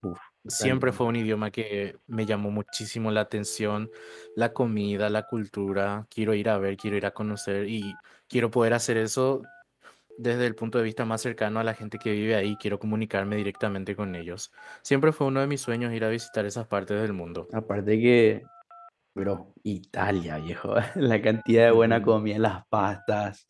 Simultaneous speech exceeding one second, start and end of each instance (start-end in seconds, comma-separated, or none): none